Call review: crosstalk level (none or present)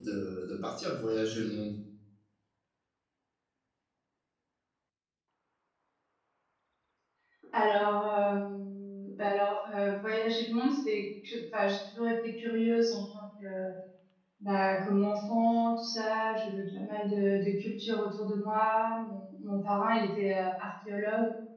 none